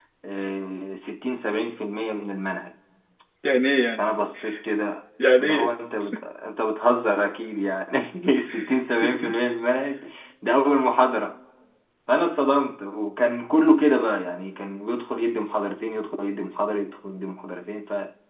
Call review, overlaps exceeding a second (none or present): none